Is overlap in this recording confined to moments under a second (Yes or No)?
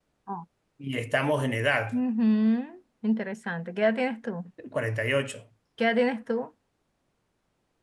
Yes